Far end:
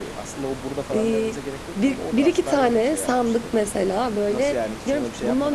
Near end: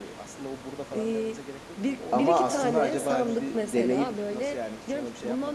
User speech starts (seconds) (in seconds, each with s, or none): 2.1 s